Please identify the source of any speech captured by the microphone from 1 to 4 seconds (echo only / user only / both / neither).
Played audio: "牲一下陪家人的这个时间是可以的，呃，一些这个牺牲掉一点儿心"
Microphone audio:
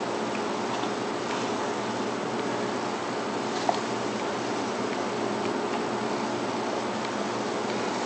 neither